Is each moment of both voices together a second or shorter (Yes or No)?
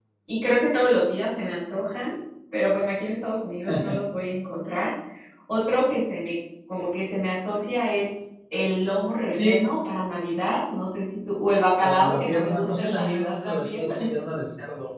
No